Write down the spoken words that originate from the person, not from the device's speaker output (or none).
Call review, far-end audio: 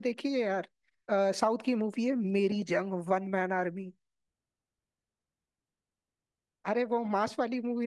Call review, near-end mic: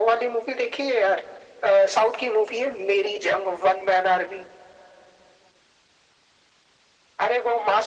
none